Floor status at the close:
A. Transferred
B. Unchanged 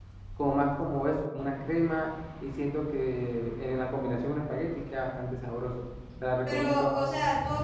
A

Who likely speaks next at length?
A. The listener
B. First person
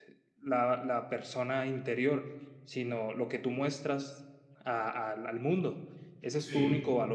B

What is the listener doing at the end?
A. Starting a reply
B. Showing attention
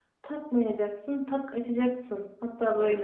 A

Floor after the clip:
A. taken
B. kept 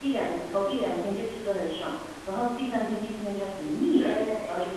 A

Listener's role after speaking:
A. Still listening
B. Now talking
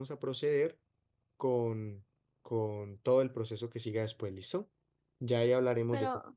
A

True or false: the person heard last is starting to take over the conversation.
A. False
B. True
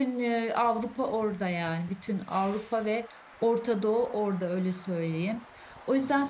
A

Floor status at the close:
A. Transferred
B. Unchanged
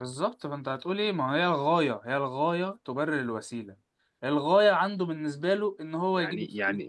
A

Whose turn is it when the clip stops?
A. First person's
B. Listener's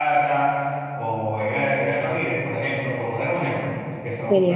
A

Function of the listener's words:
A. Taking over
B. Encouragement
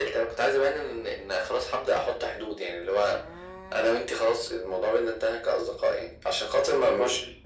B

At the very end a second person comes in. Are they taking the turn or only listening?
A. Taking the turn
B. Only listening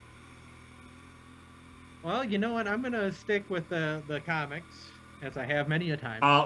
A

